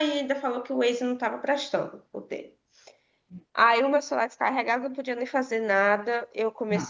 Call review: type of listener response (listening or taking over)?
listening